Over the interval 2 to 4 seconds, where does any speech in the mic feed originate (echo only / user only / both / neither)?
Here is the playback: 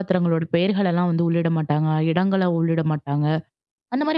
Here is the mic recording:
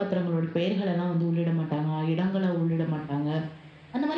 echo only